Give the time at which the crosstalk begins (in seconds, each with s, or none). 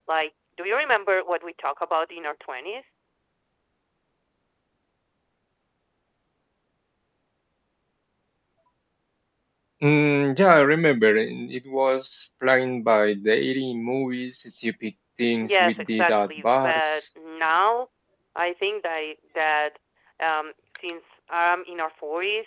15.4 s